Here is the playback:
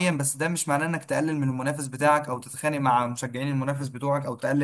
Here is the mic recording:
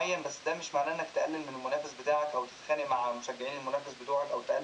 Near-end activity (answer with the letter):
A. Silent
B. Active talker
A